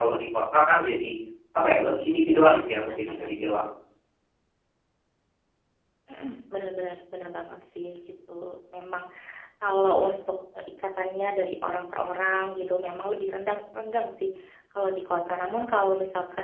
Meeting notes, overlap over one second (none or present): none